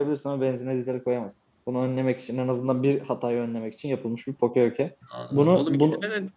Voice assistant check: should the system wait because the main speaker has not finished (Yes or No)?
No